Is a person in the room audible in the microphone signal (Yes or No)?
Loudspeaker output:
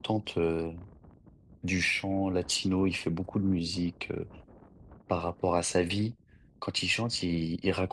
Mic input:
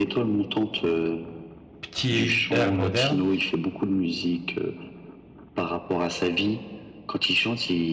Yes